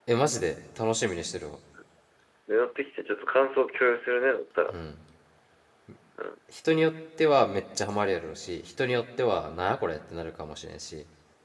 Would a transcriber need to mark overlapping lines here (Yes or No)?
No